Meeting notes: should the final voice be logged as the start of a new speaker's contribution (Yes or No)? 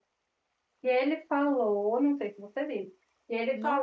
No